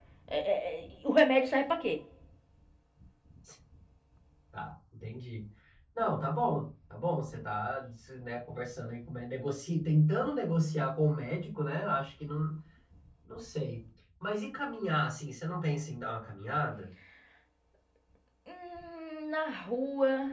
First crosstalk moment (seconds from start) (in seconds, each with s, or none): none